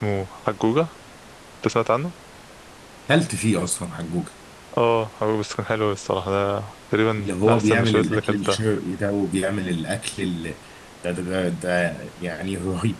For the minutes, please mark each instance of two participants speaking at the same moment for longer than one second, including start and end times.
7.2-8.6

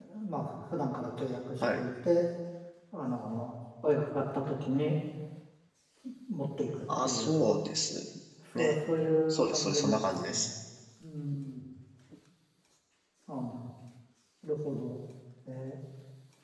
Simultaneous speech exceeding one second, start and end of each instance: 9.3-10.5

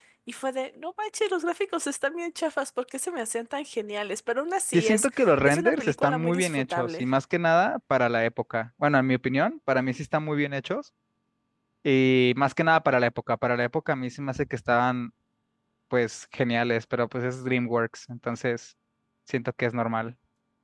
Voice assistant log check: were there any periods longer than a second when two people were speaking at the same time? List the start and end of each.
4.7-7.1

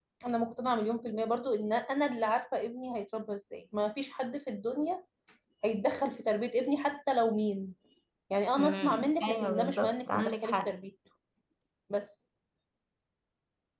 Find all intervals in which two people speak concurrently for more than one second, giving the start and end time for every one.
8.6-10.7

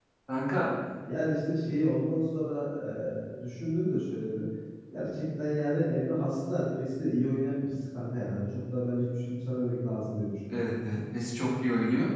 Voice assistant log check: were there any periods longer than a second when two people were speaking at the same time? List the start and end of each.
none

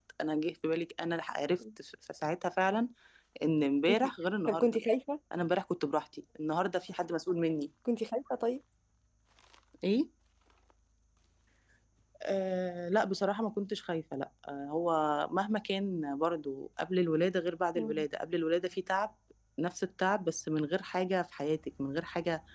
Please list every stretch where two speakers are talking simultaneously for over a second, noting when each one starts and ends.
none

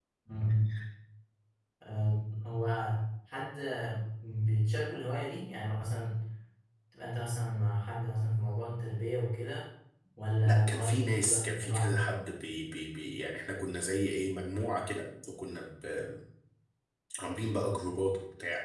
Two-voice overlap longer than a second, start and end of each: 10.4-12.1

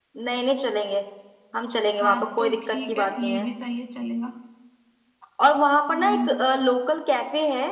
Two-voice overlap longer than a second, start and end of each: 2.0-3.4

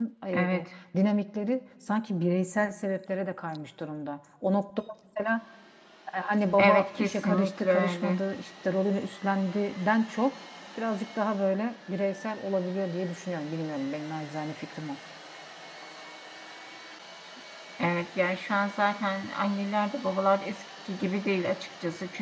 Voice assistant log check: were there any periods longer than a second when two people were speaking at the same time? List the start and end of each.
6.6-8.2

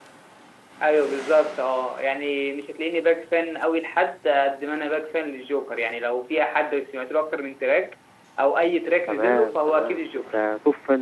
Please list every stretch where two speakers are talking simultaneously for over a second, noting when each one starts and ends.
9.1-10.4

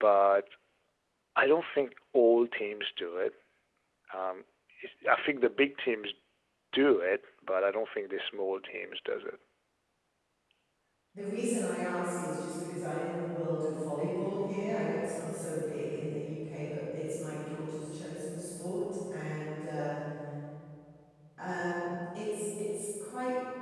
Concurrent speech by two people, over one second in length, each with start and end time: none

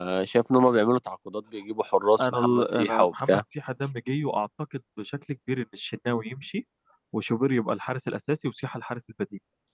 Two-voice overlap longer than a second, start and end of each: 2.2-3.4

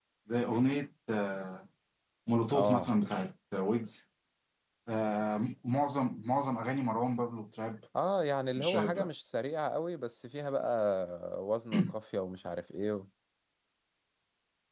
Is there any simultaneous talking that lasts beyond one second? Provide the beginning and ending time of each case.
none

